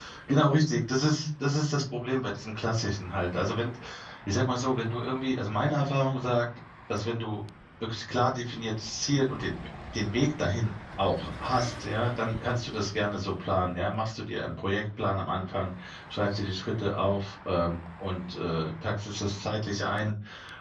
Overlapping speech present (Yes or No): No